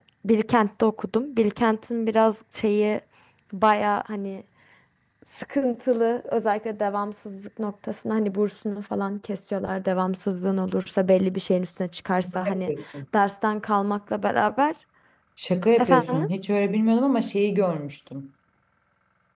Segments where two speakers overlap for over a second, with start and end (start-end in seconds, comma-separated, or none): none